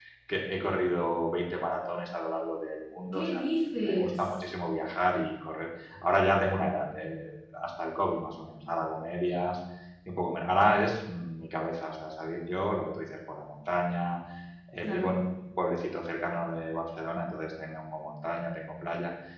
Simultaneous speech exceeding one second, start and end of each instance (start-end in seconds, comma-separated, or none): none